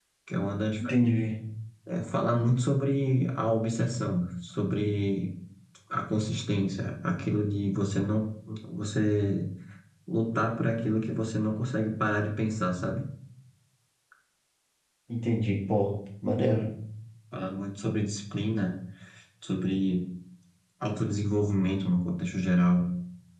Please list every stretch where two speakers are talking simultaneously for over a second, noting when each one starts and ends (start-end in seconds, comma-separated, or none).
none